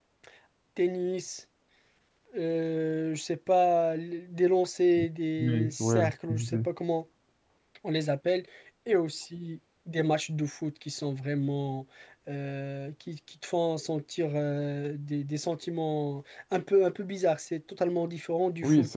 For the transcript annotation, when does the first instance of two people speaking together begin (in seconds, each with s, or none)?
5.4 s